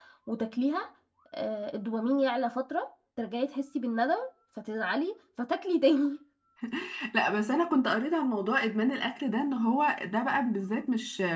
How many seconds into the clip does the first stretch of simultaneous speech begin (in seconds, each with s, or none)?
none